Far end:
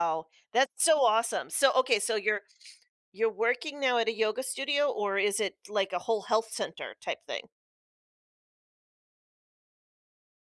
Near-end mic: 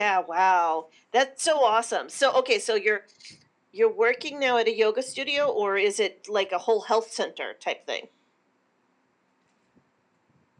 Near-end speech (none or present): none